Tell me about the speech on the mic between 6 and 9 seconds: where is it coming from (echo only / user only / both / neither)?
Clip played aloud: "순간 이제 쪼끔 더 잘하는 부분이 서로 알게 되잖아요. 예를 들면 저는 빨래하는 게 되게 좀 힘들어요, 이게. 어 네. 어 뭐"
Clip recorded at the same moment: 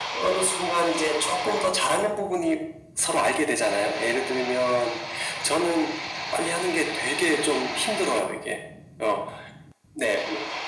echo only